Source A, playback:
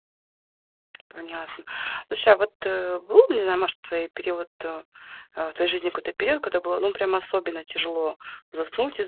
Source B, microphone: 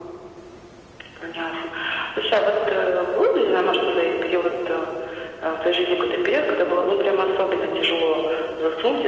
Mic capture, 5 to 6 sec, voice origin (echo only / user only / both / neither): echo only